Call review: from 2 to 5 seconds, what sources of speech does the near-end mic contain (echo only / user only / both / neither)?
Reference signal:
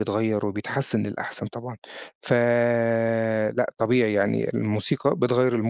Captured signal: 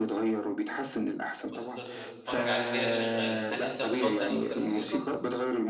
both